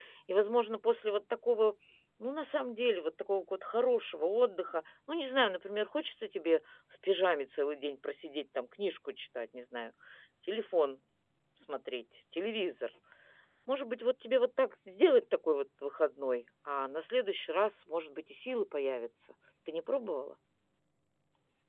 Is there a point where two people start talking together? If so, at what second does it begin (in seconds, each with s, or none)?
none